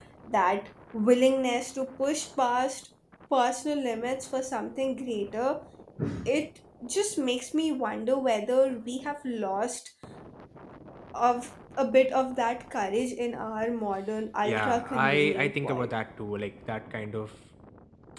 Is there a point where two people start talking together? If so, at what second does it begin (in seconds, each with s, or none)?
14.4 s